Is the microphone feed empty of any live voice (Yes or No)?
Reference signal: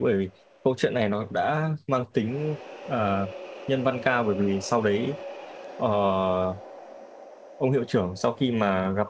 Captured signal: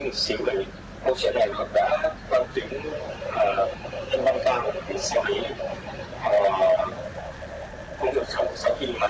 Yes